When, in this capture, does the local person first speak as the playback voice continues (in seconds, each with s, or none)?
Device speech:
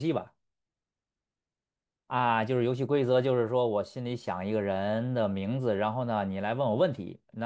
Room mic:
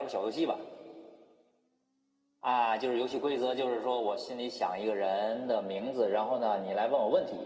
none